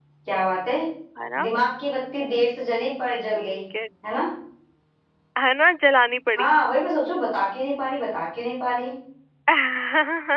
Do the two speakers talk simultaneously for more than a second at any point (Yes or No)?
No